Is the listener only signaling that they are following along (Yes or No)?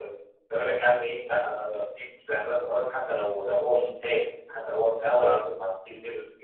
Yes